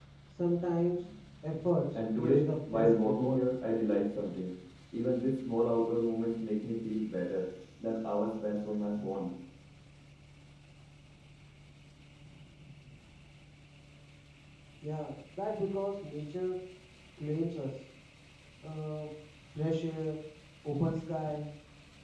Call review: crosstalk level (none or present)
present